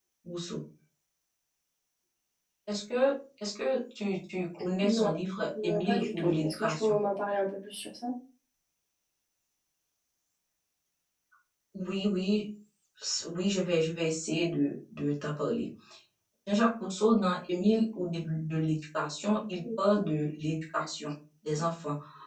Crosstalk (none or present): present